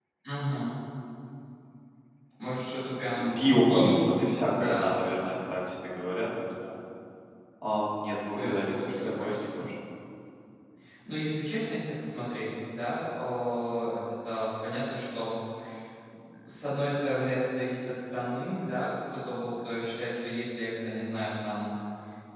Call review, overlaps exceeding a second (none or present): present